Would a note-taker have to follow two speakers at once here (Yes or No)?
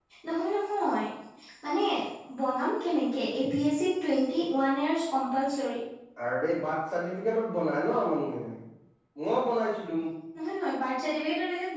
No